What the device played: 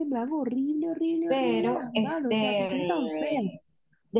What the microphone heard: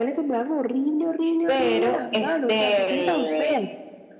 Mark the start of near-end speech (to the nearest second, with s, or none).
none